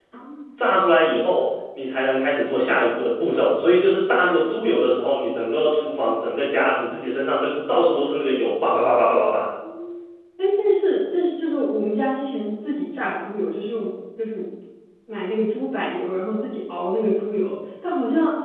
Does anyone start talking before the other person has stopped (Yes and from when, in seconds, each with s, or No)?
No